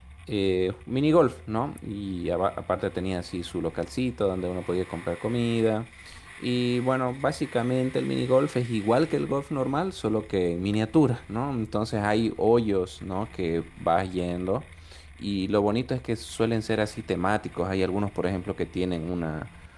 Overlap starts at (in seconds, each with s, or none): none